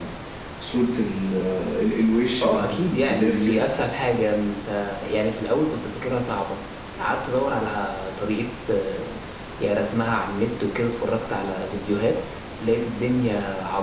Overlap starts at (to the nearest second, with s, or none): 2 s